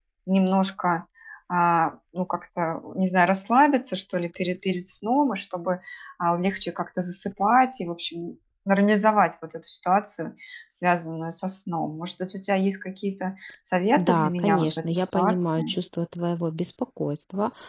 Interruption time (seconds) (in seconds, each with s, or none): 14.0 s